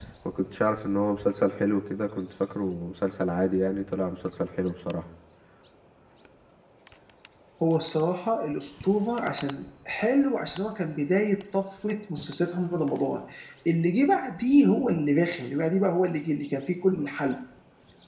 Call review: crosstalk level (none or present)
none